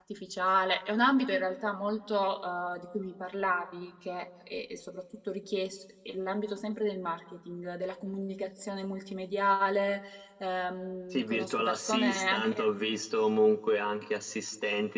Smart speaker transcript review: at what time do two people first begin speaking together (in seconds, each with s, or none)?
11.1 s